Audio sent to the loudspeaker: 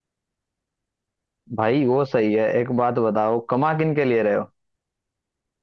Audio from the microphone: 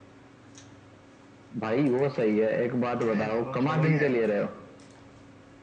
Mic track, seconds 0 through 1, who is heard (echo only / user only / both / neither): neither